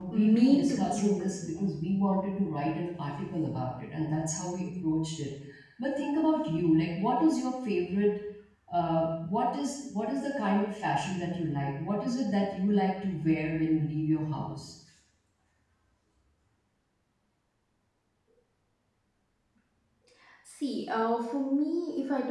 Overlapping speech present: Yes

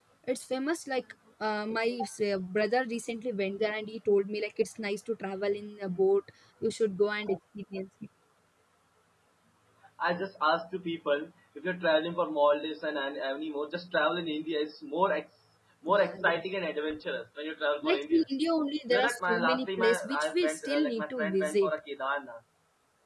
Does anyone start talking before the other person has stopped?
Yes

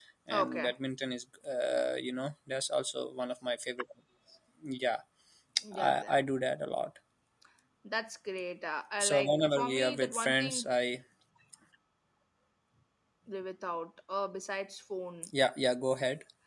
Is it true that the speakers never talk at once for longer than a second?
No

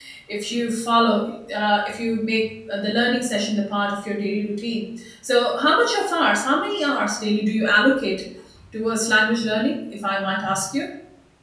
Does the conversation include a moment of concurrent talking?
No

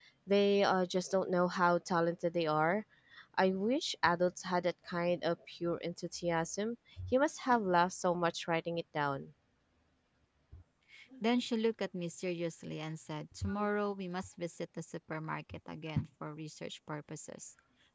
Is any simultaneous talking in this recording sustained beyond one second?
No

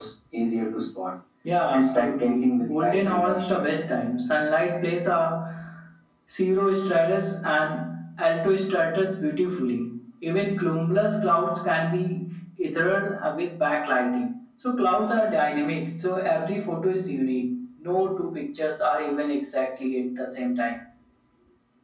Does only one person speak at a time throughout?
No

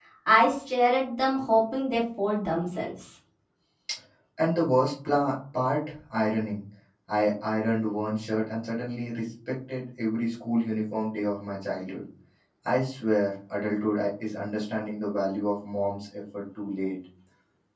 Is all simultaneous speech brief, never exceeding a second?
Yes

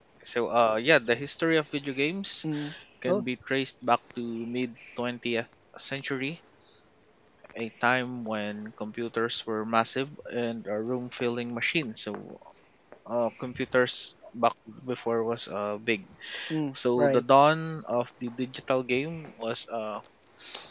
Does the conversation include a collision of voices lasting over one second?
No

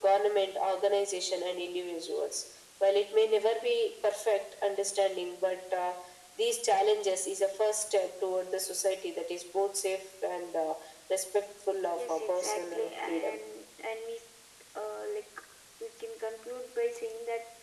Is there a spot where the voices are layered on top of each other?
Yes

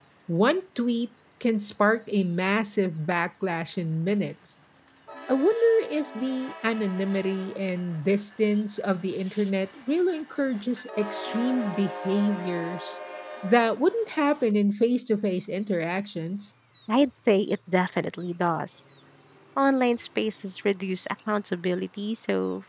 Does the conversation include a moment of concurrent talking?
No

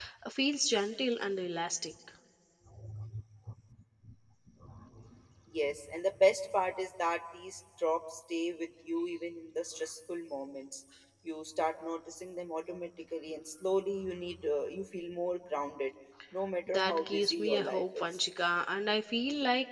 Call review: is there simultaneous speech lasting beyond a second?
Yes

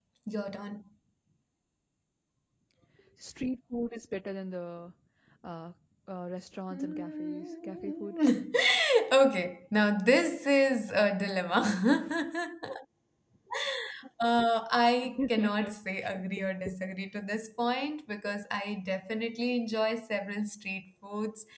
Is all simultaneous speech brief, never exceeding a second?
No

